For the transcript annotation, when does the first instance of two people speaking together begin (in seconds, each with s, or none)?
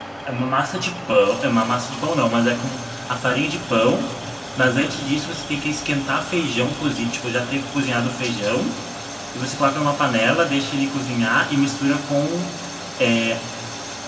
none